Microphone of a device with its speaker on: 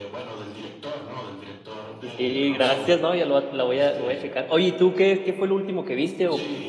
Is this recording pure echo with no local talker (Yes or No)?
No